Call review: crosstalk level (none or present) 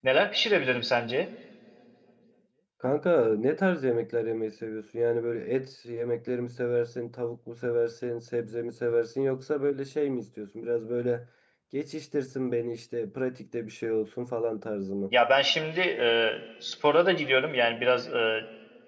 none